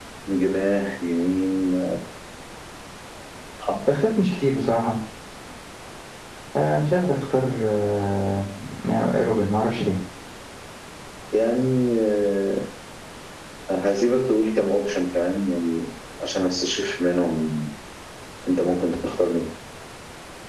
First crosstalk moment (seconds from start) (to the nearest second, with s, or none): none